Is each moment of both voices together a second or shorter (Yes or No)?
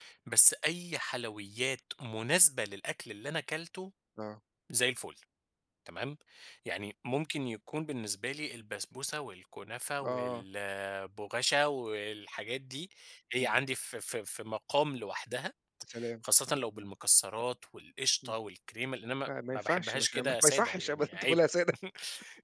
No